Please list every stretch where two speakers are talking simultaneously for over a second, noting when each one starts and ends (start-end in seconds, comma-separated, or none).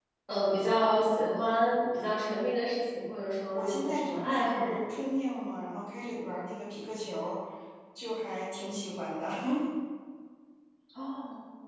3.5-4.8